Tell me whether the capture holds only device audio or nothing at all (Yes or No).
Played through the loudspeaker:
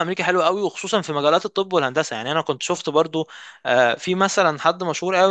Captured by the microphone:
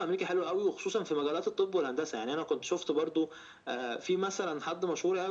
Yes